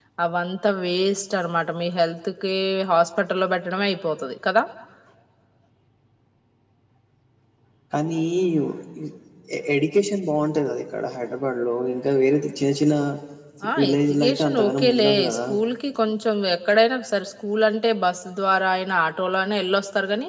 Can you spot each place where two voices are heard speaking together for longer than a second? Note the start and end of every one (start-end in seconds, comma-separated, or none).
13.8-15.4